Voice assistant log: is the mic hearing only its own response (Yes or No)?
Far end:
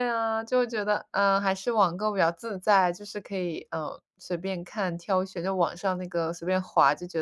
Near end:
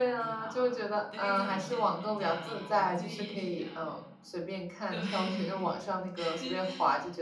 No